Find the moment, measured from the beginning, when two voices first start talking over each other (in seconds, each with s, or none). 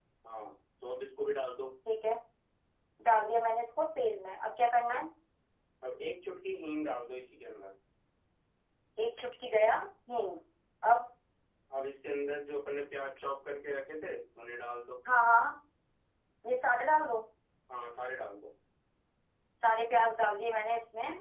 none